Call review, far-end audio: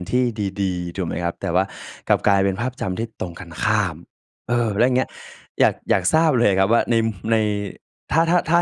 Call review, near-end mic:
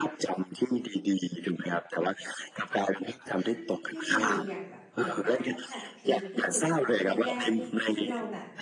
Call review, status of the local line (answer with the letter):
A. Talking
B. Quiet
A